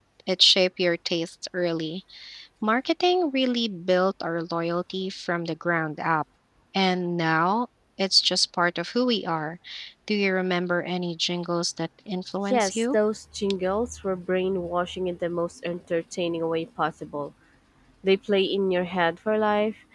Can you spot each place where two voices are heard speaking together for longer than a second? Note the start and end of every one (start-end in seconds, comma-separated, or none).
none